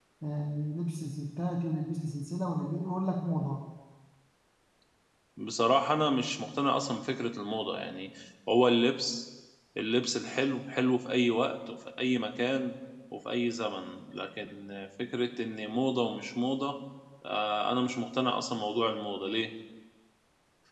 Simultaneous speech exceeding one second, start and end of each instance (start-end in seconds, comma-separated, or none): none